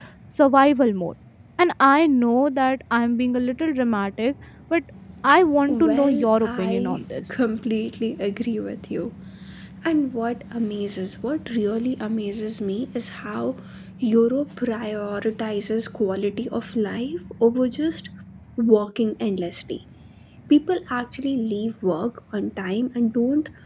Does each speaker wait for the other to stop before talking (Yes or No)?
No